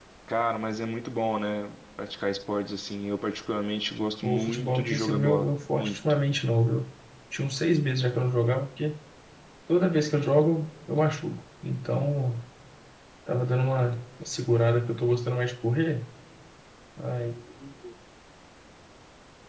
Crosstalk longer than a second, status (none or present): present